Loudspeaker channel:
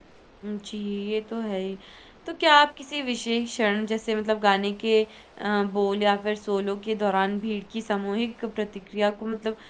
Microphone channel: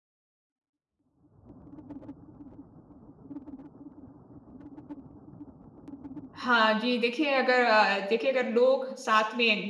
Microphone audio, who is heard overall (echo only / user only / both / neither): user only